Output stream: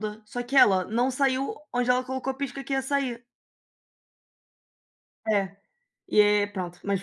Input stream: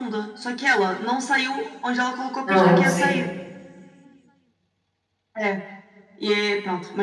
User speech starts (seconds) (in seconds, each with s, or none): 2.5 s